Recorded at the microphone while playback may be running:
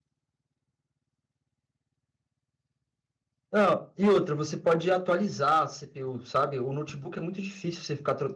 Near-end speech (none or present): present